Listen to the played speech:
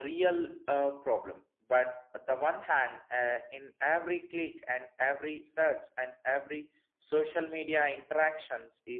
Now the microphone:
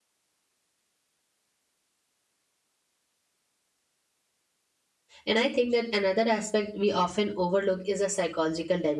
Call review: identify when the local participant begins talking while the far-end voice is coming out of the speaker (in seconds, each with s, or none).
5.2 s